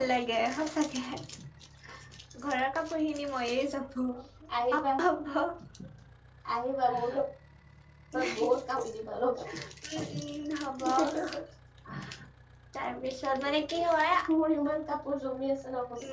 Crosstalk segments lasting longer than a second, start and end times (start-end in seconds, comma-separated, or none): none